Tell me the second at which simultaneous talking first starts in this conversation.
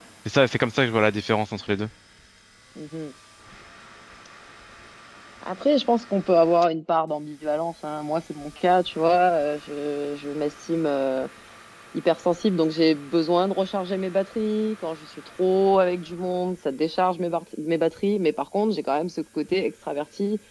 none

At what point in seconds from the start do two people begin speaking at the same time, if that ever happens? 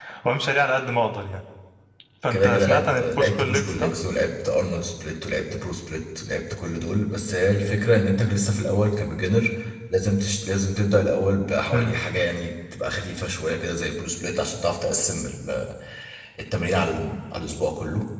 2.3 s

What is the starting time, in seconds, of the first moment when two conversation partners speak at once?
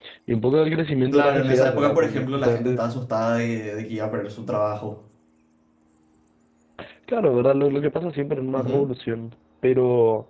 1.1 s

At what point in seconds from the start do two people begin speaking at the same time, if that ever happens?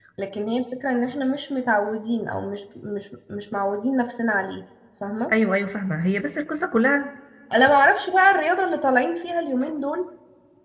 none

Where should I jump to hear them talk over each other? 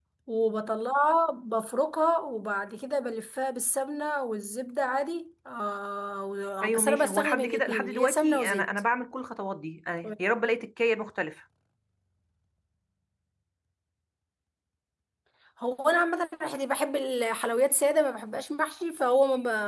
6.6 s

